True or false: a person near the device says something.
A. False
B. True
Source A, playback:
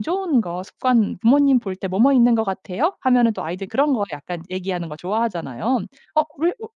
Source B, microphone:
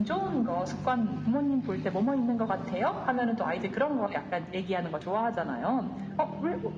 A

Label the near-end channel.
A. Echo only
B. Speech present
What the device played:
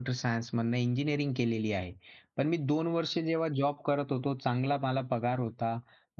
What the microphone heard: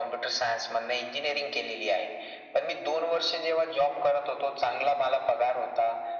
A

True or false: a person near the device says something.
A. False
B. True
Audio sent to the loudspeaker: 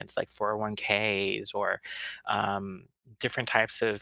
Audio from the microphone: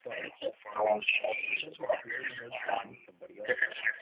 B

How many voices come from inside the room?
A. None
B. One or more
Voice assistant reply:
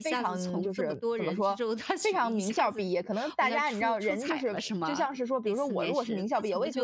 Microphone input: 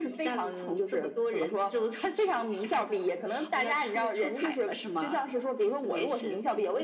A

